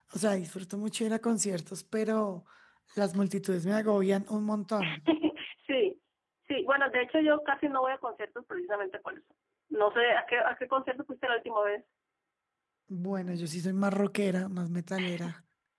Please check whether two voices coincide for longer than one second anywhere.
No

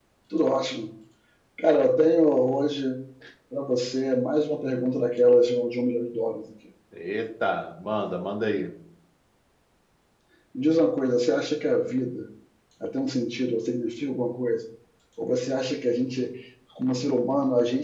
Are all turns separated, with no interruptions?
Yes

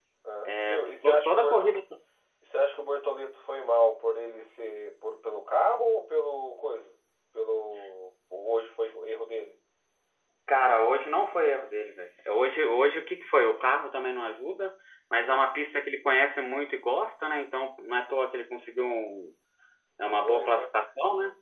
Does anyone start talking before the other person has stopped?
Yes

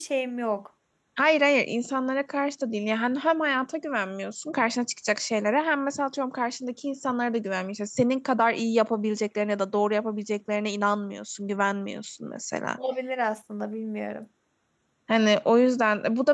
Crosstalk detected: No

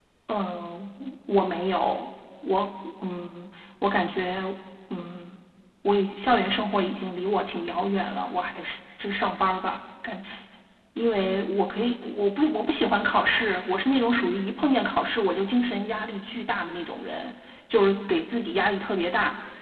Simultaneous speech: No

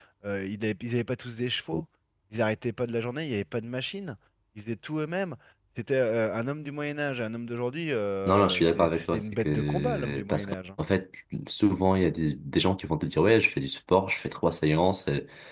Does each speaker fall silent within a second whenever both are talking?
No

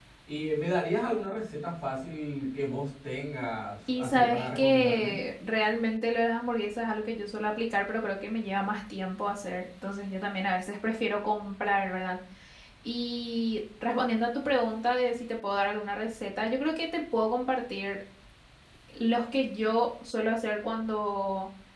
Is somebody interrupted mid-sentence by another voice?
Yes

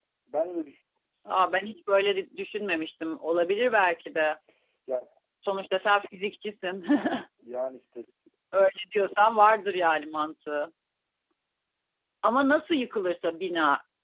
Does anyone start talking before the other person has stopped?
No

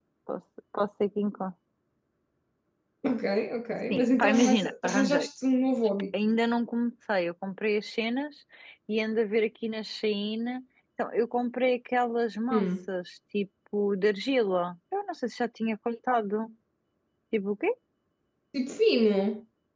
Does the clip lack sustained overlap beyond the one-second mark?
No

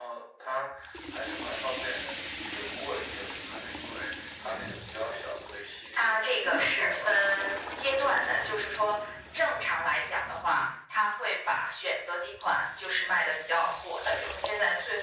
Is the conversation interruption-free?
No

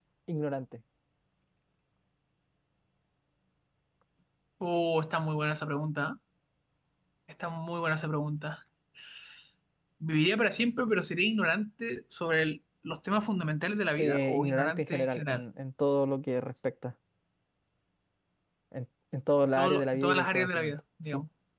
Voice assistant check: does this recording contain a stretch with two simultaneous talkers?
Yes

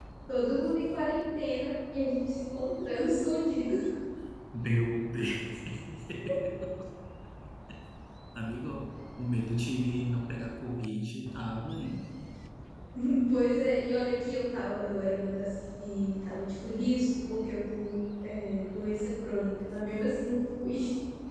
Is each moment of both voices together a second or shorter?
Yes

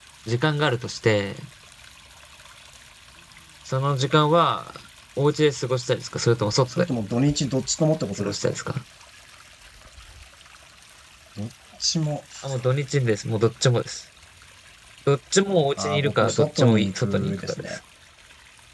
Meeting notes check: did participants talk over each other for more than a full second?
Yes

